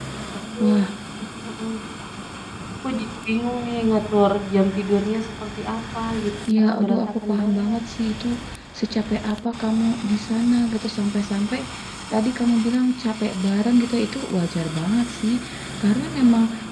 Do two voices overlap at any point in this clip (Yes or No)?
Yes